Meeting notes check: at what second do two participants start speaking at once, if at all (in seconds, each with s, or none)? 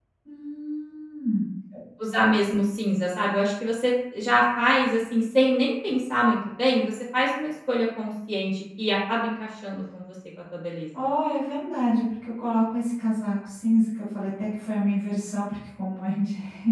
none